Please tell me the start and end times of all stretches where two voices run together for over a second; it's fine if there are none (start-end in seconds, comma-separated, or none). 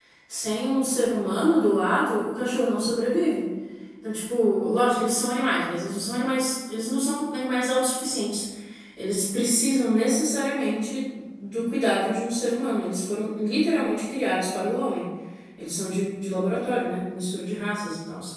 none